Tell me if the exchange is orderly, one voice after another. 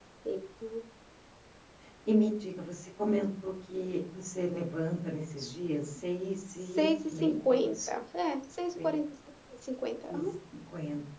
No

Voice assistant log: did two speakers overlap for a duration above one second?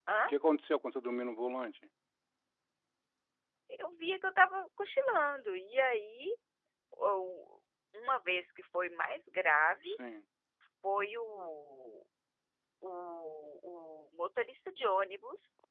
No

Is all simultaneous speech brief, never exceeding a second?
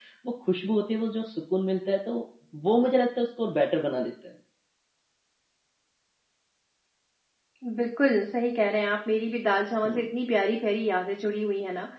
Yes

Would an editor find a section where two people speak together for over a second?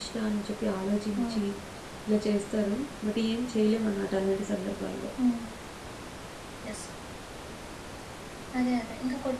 No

